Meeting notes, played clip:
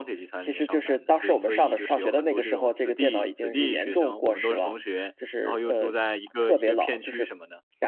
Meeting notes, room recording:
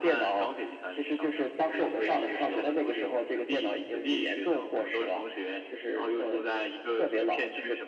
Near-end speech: none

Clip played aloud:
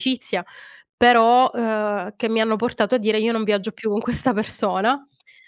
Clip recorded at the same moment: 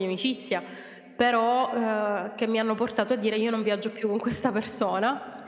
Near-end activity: none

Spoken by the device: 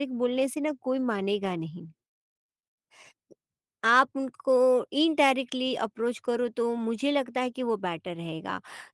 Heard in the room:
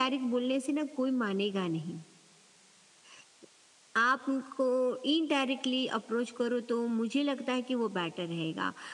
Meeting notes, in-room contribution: none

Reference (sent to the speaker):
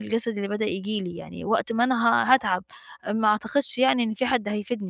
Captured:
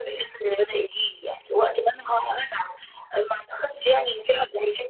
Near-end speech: none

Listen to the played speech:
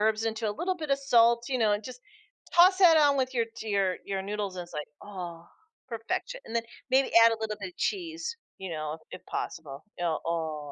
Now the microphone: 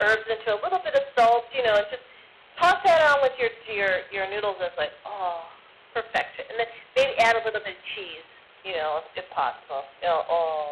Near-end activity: none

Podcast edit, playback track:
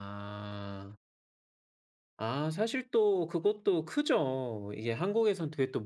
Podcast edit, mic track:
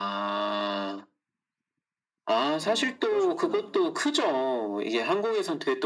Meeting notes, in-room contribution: present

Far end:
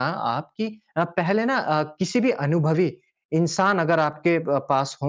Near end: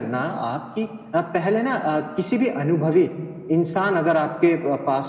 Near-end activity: none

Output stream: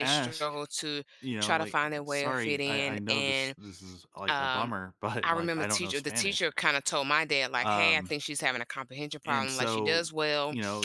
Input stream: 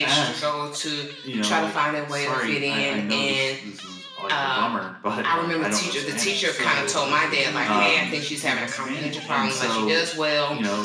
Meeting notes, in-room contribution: present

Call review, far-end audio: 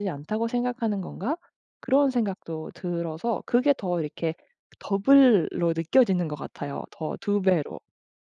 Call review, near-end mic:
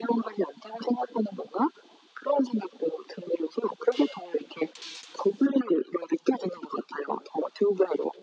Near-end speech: none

